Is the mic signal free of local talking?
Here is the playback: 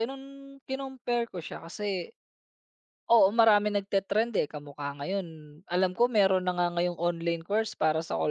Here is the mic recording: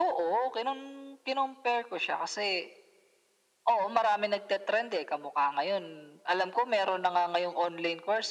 Yes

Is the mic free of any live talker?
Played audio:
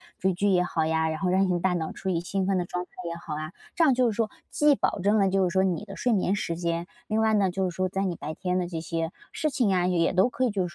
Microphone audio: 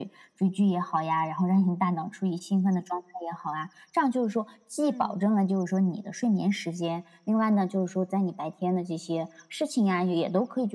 No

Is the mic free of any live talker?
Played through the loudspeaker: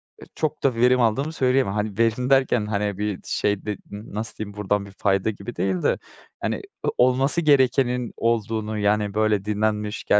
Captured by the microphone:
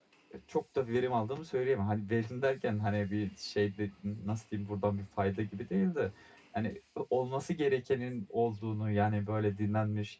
Yes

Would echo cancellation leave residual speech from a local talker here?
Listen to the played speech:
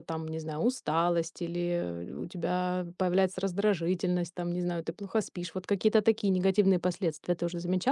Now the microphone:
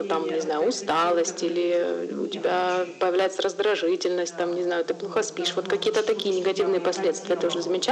Yes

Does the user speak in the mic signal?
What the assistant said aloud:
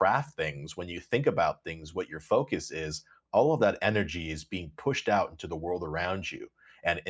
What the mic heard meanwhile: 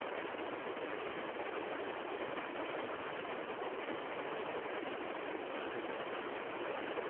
No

